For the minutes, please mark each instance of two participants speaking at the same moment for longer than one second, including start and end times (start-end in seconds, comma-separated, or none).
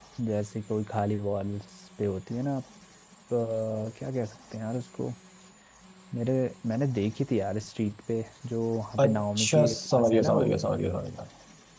9.0-10.6